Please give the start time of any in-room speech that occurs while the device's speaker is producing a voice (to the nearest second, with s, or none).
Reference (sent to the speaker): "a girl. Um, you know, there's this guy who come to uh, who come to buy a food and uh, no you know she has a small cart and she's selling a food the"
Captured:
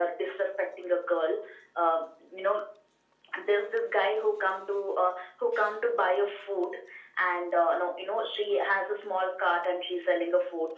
none